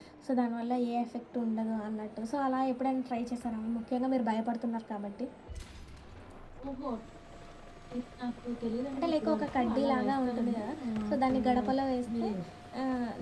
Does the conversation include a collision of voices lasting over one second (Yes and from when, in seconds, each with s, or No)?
Yes, from 8.9 s